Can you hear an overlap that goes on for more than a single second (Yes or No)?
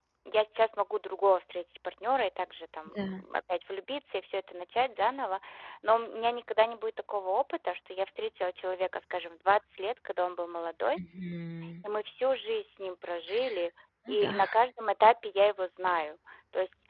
No